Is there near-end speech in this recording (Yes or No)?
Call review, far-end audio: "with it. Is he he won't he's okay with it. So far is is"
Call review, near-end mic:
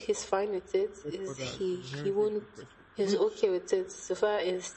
Yes